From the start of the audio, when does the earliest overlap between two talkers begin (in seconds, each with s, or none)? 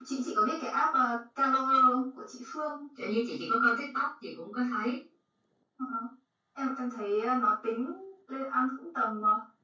none